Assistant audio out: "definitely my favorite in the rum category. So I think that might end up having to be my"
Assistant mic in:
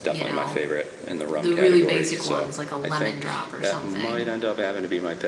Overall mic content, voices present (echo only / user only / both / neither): both